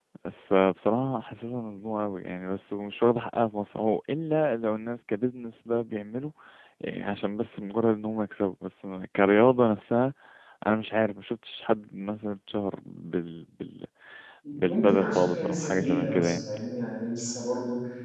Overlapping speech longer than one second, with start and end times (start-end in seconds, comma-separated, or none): 14.6-16.4